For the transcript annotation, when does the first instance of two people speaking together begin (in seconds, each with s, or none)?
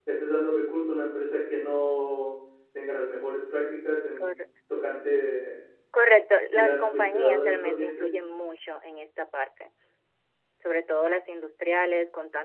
6.5 s